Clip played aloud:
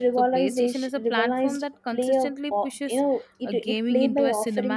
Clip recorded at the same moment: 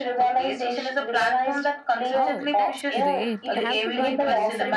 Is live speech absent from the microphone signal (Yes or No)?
No